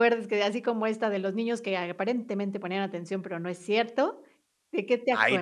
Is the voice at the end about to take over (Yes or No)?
Yes